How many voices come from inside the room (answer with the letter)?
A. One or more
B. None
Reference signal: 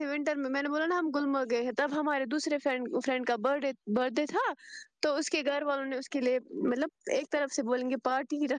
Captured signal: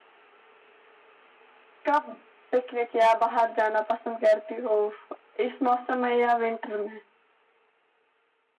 A